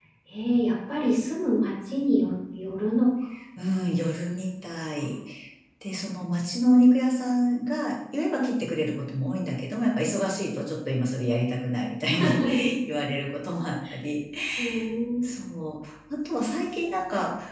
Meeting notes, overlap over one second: none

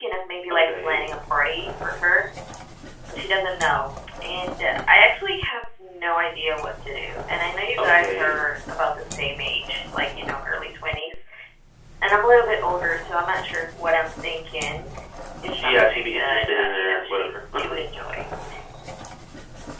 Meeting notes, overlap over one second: present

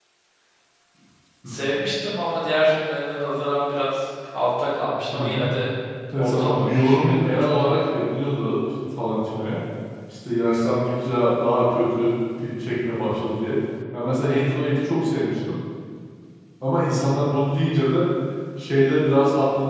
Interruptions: present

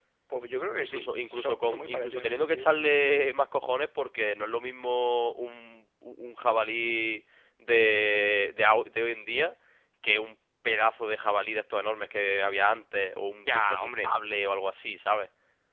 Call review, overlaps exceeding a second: present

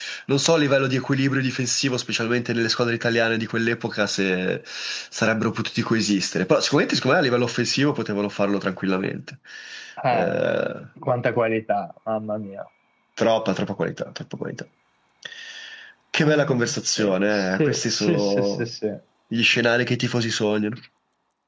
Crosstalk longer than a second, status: present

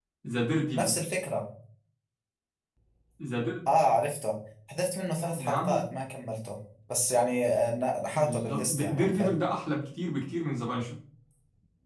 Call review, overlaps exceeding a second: present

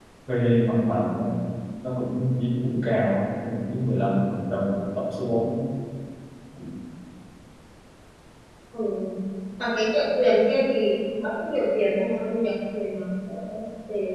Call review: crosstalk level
none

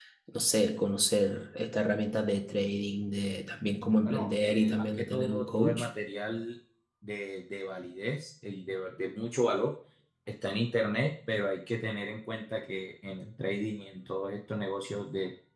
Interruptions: present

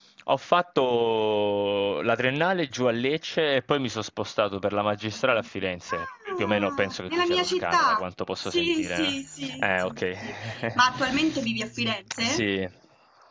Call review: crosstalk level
present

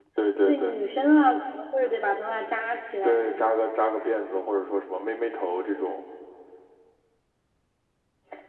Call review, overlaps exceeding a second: none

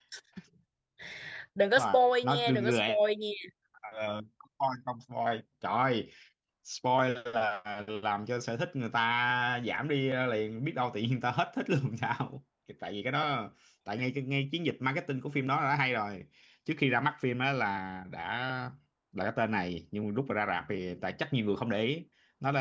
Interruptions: present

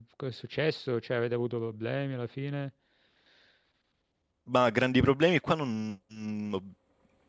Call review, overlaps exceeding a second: none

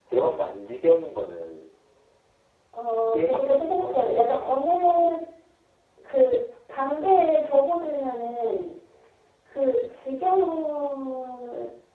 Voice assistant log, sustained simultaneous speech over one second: present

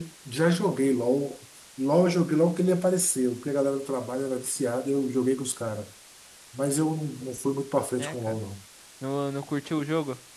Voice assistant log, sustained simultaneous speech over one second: none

